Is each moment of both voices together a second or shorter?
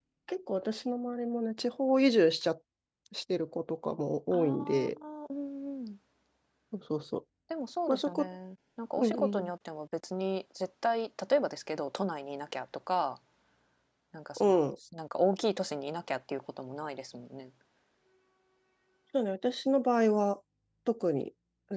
Yes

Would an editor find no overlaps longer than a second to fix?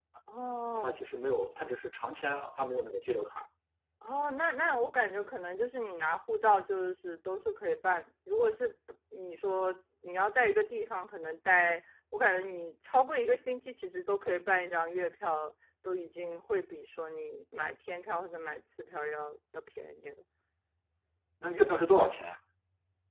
Yes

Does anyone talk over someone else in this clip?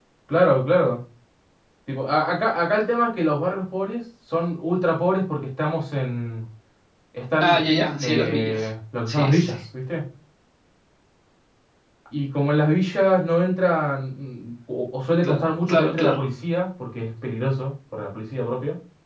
Yes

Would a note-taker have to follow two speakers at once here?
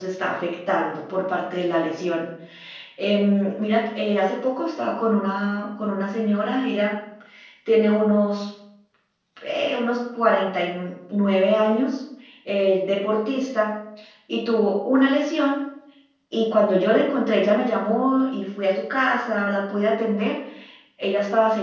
No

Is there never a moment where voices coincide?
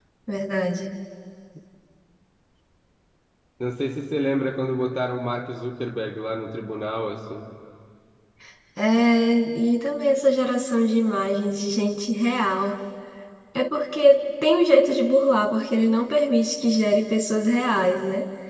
Yes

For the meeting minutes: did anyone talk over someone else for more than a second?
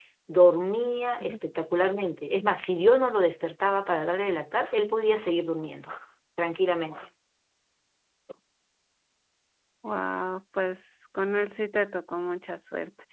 No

